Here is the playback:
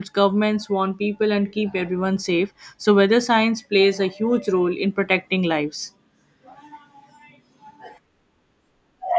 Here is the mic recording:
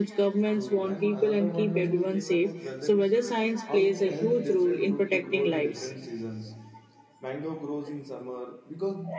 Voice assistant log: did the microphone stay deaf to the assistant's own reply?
No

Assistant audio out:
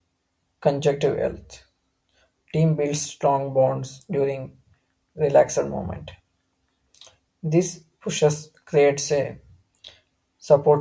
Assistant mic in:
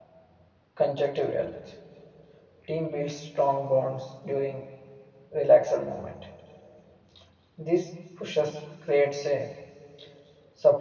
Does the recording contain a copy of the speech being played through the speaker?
Yes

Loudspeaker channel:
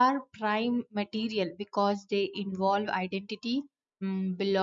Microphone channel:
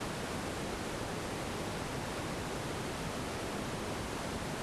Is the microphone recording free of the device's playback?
Yes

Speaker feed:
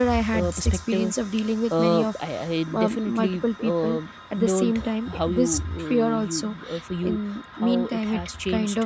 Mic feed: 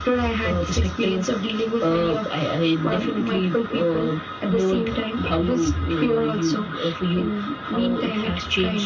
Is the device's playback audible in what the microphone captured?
Yes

